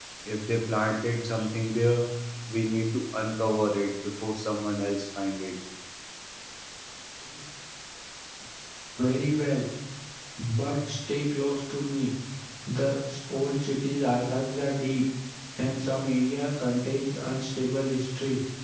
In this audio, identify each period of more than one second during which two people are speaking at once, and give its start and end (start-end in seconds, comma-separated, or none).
none